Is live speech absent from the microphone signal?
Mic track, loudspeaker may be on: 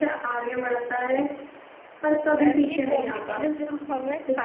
No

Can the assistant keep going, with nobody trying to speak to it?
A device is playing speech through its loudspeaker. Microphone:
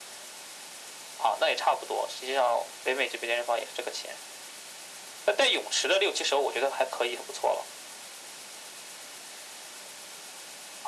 Yes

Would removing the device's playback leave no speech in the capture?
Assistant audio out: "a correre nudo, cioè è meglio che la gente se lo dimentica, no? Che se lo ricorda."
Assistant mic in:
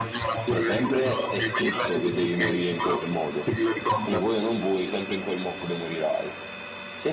No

